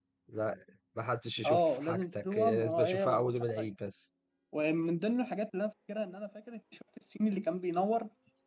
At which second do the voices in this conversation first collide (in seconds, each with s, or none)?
1.4 s